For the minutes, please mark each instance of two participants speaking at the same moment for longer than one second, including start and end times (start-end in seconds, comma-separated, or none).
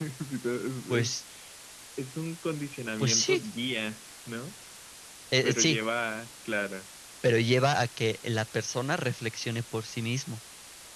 none